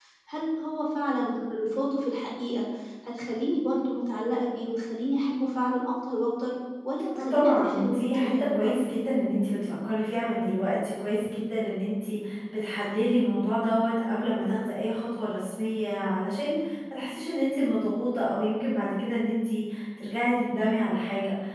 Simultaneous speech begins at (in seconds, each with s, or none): 7.2 s